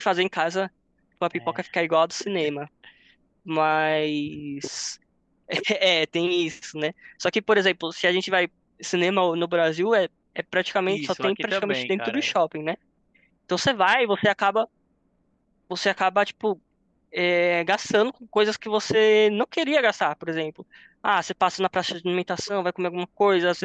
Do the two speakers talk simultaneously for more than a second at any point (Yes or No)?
Yes